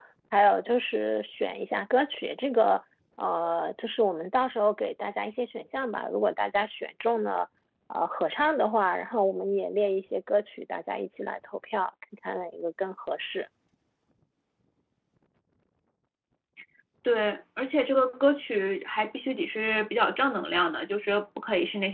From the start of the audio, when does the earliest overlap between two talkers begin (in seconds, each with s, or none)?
none